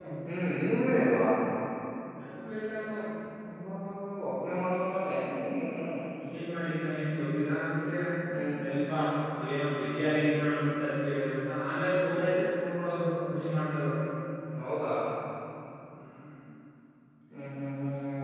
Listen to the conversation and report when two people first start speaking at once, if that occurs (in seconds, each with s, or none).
none